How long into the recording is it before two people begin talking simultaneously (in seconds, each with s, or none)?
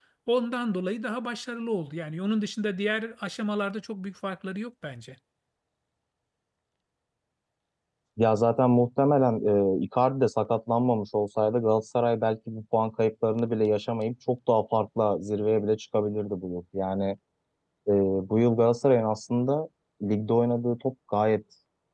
none